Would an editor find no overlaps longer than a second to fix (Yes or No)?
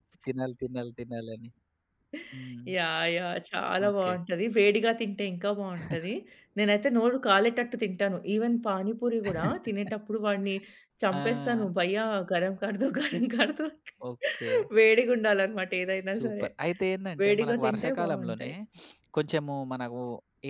No